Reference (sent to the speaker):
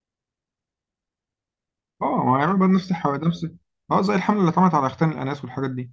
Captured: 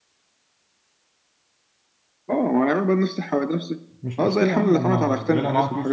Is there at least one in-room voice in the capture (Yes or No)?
Yes